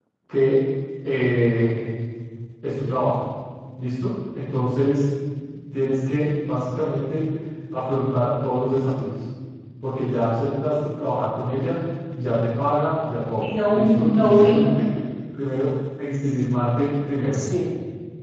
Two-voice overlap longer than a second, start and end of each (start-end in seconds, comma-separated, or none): 13.4-14.7